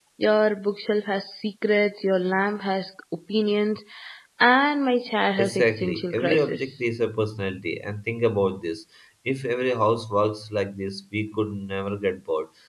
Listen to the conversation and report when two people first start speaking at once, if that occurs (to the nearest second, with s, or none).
5 s